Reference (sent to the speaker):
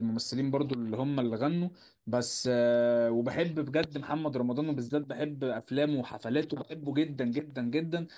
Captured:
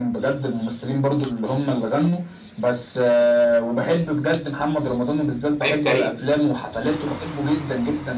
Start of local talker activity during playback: 5.6 s

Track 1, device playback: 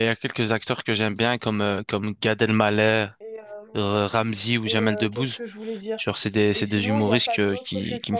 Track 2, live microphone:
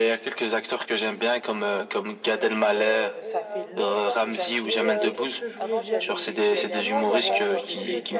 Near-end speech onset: 2.3 s

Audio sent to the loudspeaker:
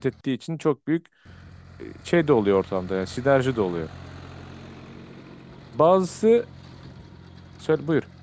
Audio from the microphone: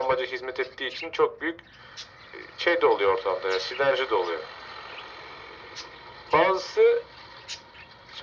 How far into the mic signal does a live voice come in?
none

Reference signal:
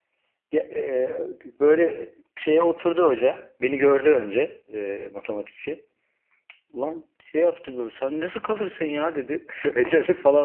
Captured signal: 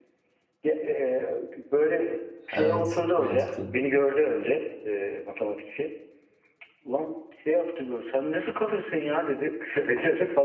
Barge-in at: 2.5 s

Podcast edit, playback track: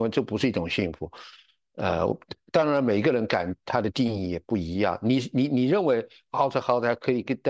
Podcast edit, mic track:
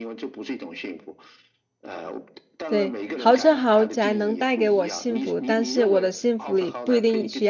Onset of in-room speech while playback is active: 2.7 s

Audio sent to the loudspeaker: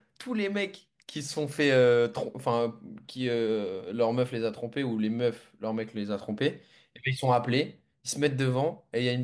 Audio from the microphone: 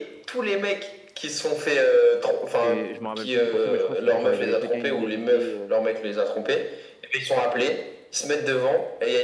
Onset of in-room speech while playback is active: 2.5 s

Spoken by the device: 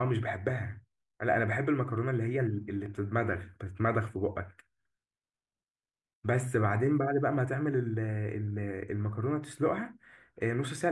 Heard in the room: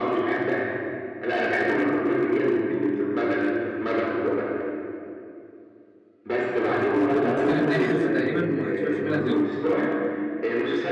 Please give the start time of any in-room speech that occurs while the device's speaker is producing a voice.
7.2 s

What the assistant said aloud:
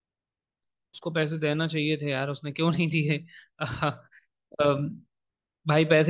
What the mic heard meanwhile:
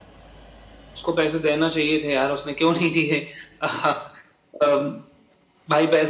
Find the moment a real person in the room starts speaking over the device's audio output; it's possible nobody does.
none

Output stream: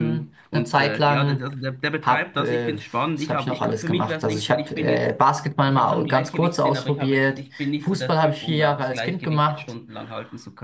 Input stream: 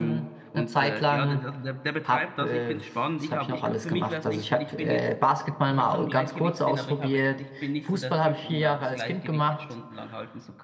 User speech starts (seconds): none

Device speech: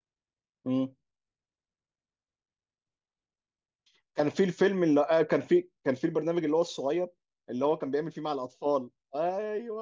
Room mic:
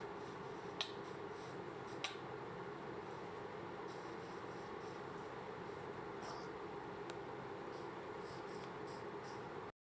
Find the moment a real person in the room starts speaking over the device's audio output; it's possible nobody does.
none

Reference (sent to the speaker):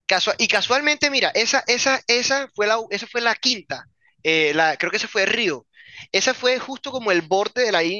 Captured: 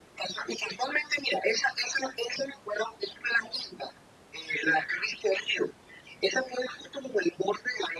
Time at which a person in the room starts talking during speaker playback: none

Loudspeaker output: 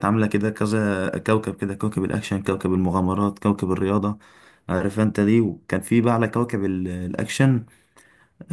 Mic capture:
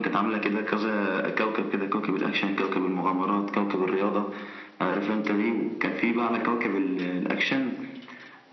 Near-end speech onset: none

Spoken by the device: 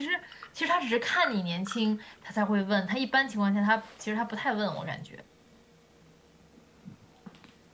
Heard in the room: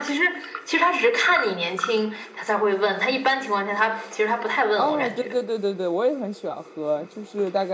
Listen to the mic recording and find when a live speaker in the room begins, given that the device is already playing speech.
4.7 s

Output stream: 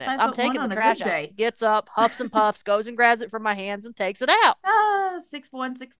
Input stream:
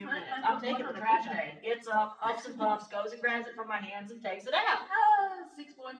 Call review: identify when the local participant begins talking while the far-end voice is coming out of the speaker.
none

